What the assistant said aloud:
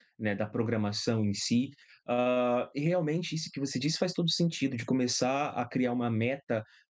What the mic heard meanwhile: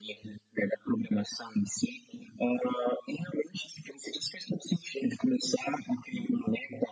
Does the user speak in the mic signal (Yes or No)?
No